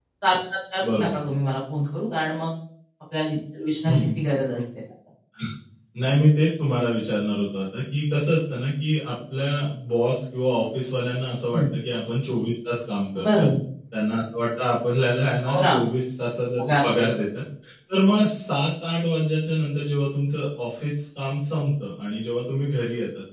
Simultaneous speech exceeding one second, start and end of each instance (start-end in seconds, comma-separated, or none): none